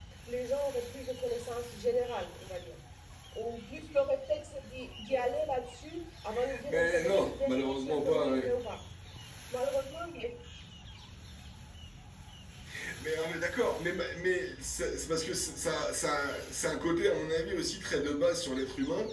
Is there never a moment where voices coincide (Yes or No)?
No